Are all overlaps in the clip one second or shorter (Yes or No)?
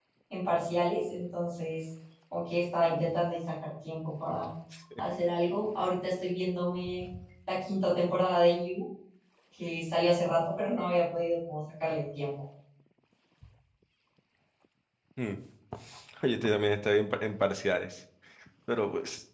Yes